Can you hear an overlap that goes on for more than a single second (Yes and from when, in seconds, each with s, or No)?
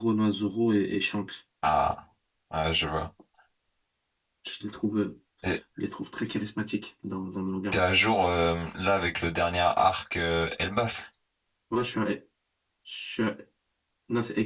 No